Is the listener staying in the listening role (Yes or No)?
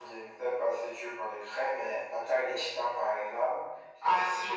No